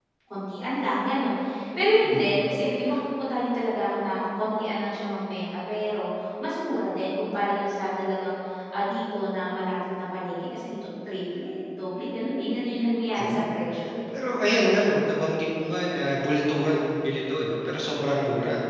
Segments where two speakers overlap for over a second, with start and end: none

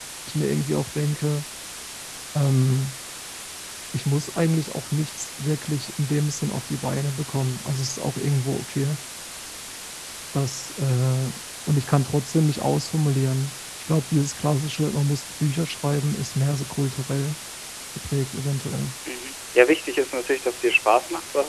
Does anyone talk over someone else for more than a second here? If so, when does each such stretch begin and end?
none

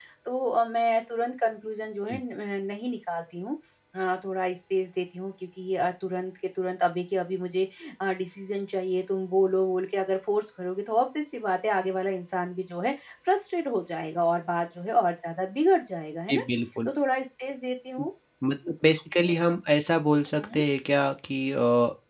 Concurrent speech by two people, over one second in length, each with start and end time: none

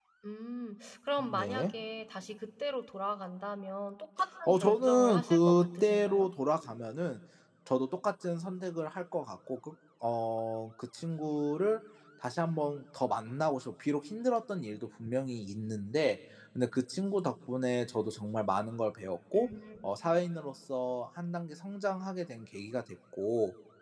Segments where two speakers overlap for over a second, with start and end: 4.5-6.3

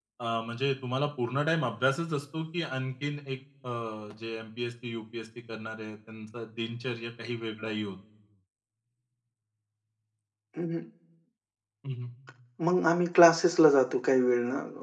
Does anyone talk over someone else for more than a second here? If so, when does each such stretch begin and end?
none

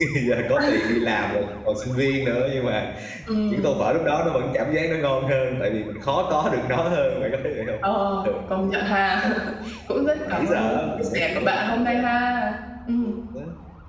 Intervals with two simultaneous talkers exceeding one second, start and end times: 10.0-12.0

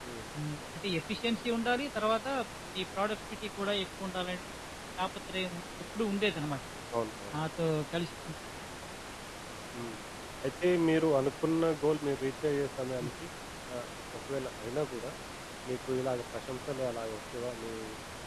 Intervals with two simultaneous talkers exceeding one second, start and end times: none

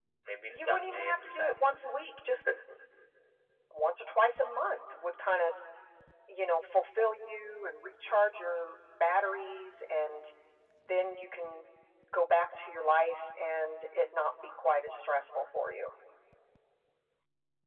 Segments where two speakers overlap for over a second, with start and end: 0.5-1.8

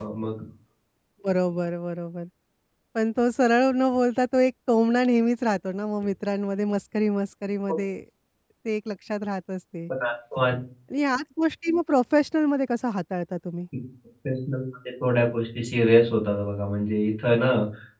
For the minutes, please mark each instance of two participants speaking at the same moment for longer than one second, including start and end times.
none

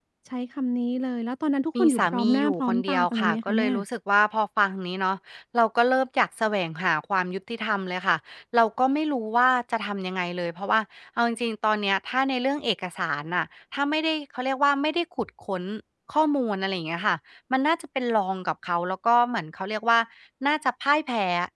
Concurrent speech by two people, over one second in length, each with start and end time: 1.8-3.7

